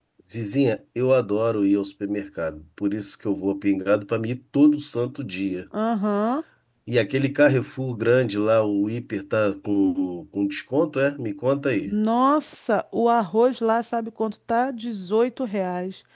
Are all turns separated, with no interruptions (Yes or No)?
Yes